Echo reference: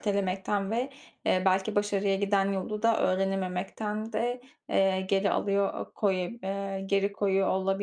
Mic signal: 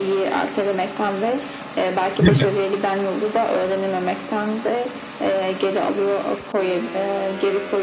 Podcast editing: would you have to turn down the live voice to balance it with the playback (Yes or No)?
Yes